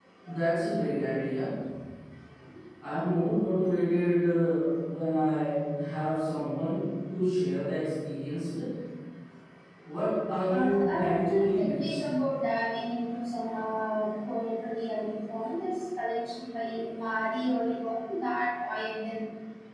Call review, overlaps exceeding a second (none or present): present